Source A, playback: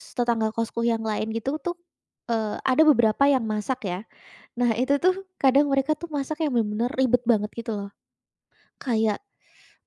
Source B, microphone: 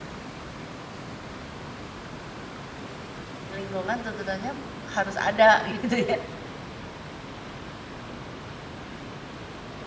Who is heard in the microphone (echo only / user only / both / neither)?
user only